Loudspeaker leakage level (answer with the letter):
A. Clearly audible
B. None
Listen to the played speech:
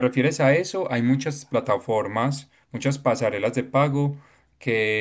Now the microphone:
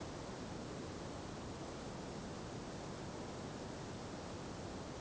B